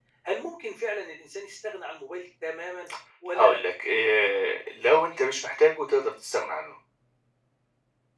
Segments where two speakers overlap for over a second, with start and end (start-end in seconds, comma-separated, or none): none